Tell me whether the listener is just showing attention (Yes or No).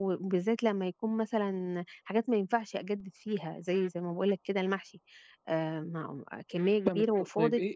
No